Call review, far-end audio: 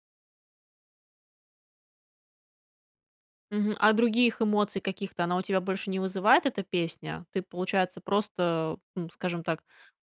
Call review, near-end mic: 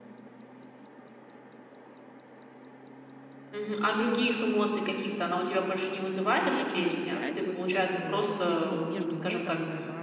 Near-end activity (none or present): present